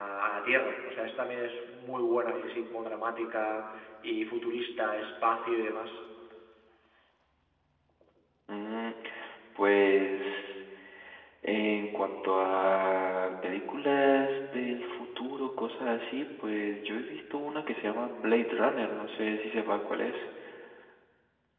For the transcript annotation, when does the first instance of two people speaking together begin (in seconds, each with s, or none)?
none